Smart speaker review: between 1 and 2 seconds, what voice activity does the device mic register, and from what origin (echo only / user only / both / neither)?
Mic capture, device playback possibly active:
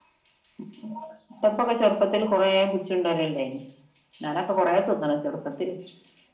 echo only